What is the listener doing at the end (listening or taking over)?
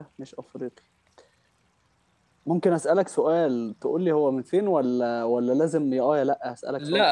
taking over